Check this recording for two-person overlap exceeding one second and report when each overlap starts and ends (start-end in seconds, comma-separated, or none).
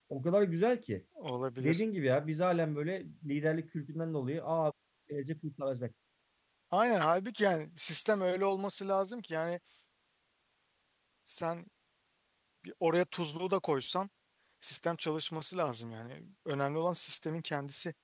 none